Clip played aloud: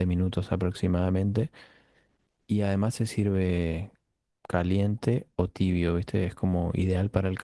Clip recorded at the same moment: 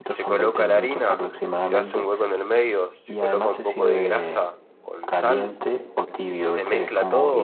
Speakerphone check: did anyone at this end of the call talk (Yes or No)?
Yes